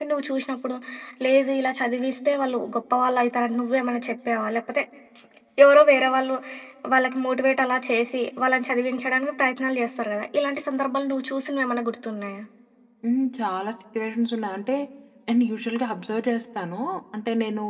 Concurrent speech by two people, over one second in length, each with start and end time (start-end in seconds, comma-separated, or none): none